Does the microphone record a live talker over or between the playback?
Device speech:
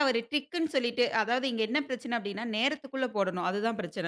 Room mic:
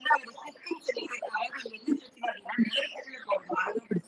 No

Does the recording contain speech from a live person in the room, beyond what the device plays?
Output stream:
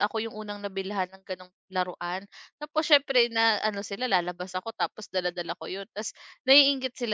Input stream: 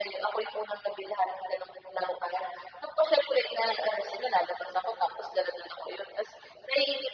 No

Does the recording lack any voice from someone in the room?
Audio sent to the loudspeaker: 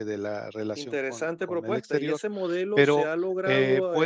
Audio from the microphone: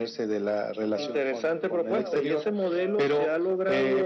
No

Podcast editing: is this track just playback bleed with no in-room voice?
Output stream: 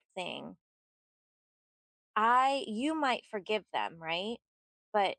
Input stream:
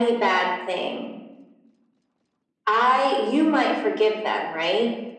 Yes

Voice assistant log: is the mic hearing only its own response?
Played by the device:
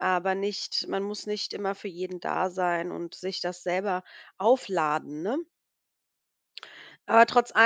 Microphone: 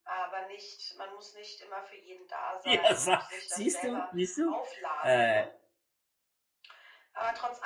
No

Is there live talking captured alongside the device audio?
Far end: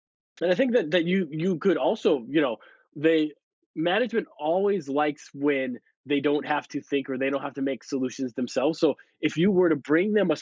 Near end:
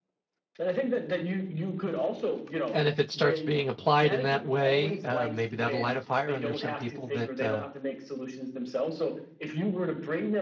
Yes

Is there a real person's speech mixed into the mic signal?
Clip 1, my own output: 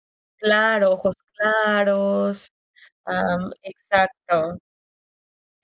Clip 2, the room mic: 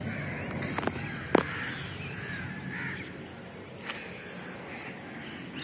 No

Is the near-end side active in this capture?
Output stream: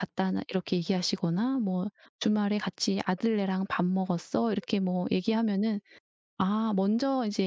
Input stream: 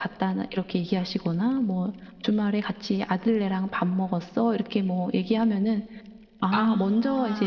Yes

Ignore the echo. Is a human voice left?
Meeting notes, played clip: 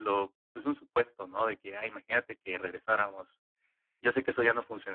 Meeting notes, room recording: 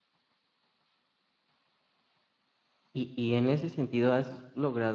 Yes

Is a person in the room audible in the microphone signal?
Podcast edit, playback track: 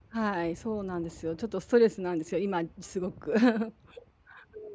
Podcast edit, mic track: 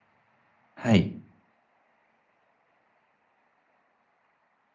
Yes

